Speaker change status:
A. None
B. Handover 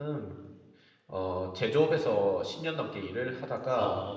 A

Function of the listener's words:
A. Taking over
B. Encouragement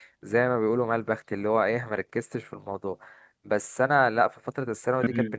B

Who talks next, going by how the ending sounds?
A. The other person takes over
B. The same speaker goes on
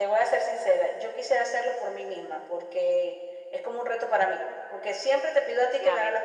A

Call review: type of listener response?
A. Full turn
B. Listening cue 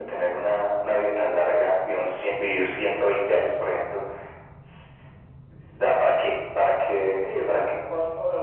A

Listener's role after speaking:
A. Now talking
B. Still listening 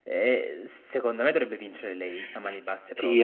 A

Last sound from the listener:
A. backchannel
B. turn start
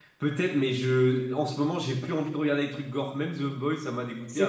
B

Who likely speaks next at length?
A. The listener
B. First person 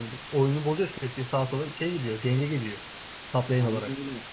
A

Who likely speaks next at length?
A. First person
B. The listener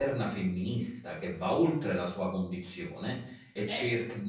A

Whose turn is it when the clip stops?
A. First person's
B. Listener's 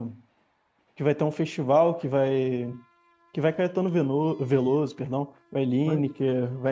A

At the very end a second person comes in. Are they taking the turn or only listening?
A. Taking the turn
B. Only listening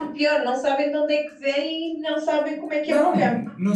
A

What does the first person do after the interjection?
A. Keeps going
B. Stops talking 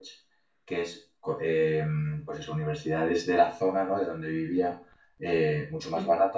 A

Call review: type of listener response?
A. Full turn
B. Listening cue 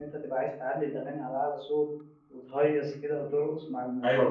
A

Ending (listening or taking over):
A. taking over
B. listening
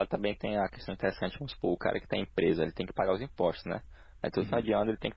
B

